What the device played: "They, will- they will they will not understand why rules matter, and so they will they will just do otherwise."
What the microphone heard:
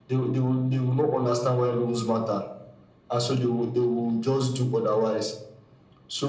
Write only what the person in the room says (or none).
none